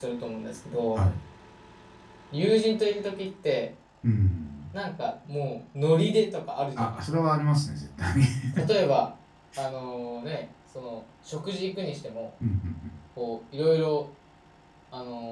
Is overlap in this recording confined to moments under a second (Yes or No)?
Yes